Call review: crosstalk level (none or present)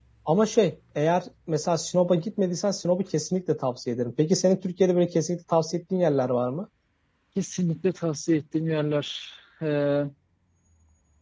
none